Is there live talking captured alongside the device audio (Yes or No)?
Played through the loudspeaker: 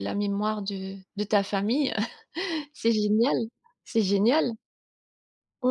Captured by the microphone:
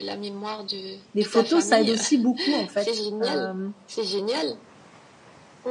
Yes